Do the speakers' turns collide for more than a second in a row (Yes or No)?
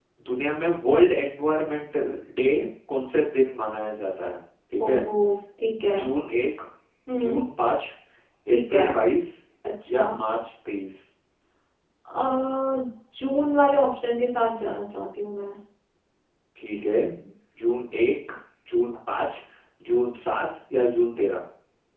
No